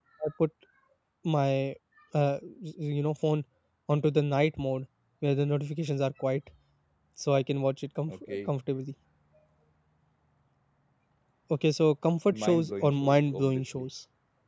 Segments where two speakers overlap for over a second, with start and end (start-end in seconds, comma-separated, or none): 12.3-13.8